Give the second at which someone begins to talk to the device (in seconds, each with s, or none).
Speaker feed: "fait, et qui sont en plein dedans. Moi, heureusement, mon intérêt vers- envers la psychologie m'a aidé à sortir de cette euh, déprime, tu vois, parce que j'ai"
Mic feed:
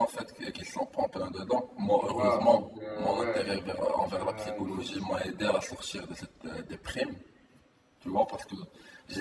2.0 s